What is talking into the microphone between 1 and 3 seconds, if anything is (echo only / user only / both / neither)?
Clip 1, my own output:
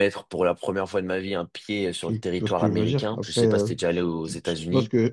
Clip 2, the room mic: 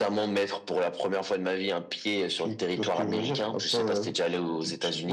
echo only